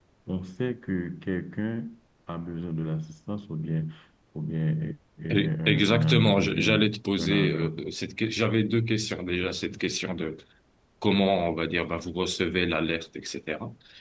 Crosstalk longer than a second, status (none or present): present